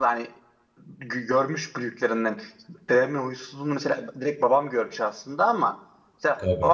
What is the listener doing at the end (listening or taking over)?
listening